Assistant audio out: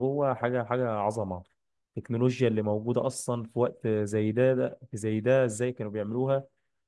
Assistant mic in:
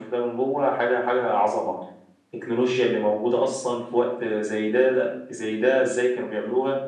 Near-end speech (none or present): none